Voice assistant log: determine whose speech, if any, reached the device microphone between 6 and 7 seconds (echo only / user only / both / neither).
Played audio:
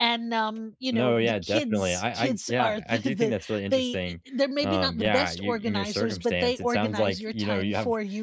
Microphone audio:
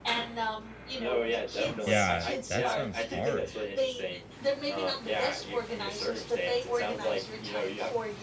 echo only